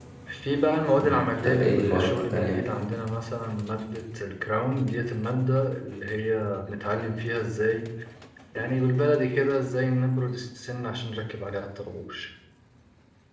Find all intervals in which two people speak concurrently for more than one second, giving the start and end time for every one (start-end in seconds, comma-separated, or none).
1.0-2.6